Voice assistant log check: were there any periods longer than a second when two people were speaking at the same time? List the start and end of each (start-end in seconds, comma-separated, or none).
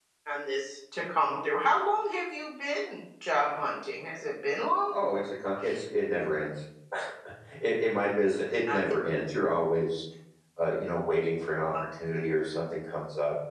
none